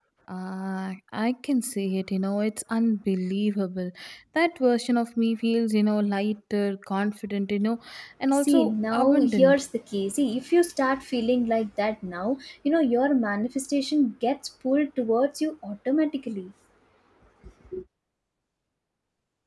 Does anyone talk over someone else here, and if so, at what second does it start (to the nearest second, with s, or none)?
8 s